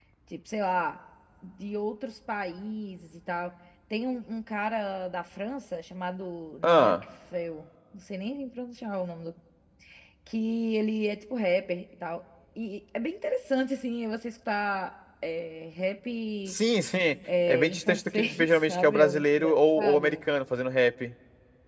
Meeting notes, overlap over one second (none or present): present